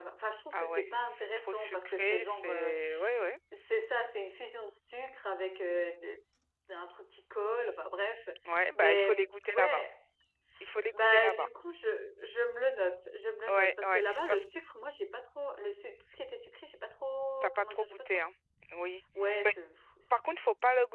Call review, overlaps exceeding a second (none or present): present